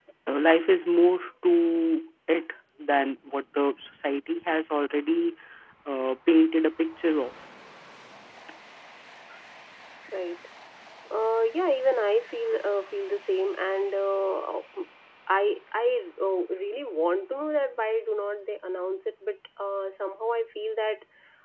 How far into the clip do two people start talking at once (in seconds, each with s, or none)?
none